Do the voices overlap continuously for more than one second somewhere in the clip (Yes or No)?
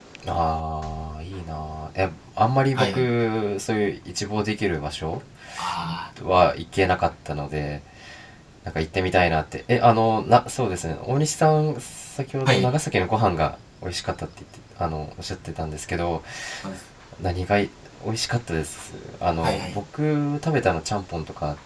No